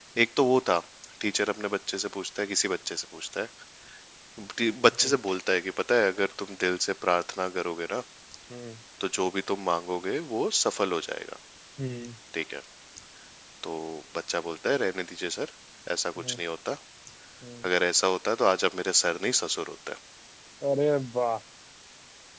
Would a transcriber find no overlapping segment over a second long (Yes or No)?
Yes